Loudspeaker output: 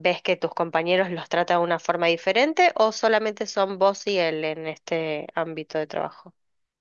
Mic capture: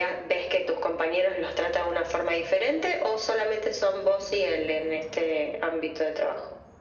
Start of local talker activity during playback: none

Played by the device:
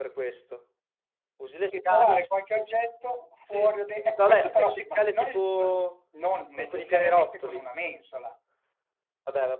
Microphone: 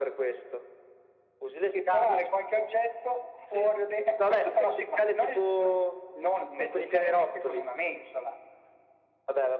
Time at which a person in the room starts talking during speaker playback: none

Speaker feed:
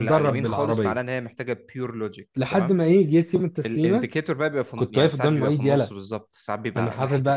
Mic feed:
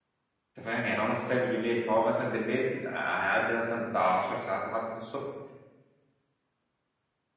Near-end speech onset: 0.6 s

